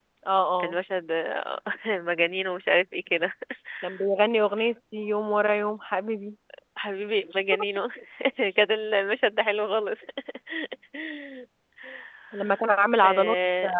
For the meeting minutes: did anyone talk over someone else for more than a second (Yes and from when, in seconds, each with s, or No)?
No